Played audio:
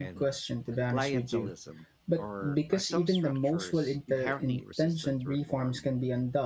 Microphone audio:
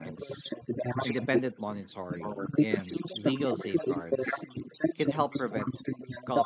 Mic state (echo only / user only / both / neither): both